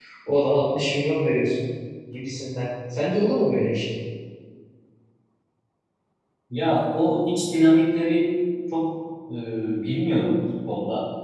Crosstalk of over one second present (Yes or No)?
No